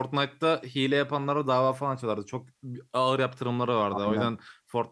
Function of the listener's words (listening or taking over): listening